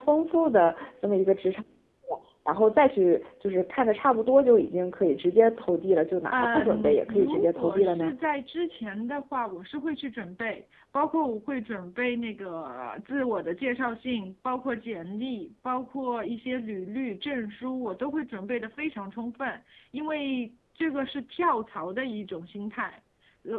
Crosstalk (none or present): present